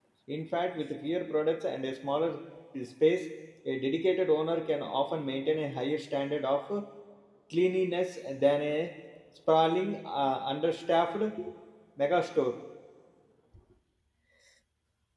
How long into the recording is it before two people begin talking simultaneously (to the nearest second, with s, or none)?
none